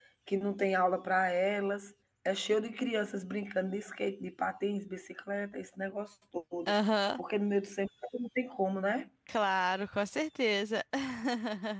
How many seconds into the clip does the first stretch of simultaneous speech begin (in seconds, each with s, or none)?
none